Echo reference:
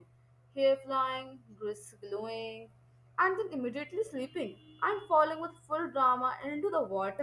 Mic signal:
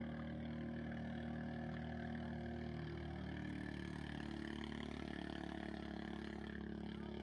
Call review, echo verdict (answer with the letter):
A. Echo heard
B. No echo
B